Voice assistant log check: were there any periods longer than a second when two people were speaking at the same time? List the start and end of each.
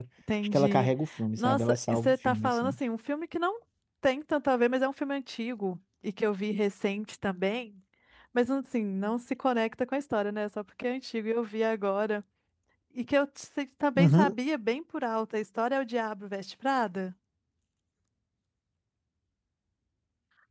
1.4-2.8

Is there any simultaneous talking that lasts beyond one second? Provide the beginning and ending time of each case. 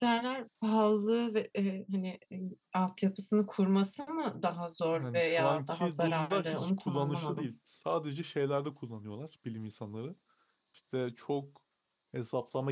4.9-7.5

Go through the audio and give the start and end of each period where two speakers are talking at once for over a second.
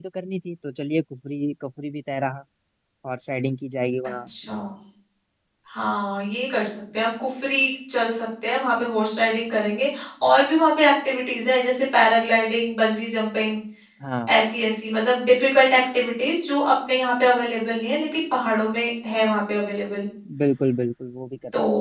none

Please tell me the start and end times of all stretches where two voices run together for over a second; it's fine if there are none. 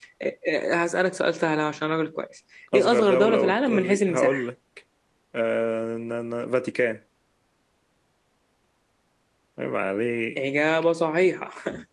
2.7-4.4

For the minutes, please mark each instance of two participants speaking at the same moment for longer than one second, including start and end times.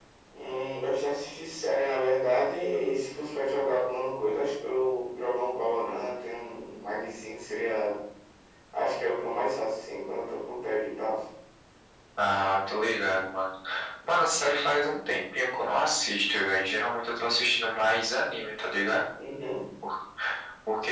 none

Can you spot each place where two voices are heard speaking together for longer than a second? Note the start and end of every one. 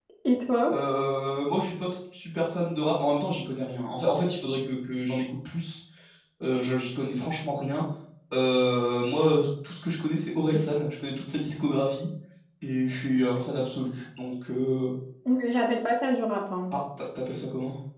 none

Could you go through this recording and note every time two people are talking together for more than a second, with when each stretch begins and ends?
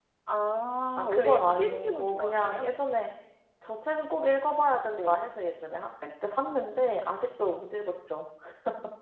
1.0-2.7

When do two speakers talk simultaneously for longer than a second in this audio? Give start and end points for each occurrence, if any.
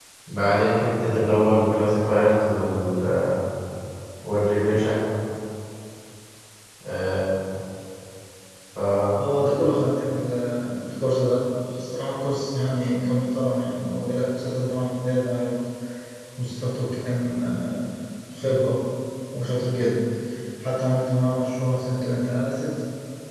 none

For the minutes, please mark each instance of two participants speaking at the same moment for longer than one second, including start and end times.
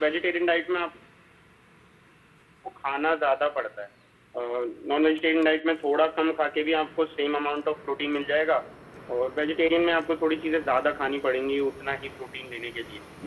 none

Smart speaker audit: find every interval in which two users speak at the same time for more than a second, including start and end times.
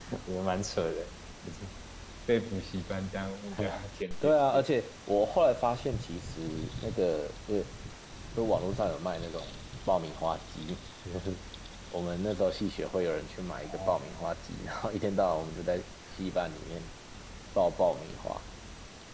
none

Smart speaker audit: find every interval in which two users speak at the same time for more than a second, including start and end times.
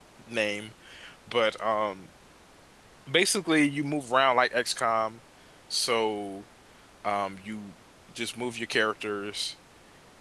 none

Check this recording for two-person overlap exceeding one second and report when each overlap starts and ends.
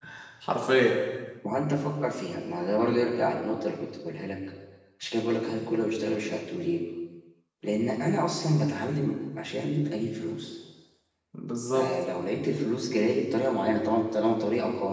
none

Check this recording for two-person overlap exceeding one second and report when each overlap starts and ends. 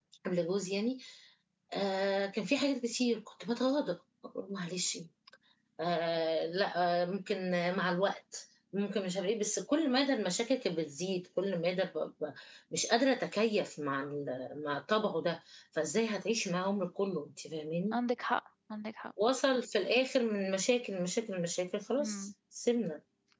none

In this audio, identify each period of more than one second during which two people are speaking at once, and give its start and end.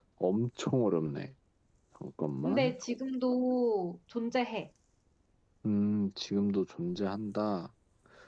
none

